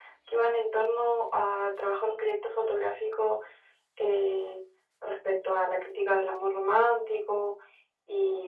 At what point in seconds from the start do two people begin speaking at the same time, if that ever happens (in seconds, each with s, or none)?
none